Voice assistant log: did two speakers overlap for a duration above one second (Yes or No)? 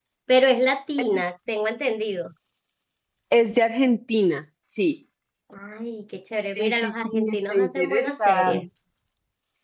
Yes